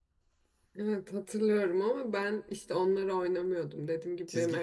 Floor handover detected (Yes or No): Yes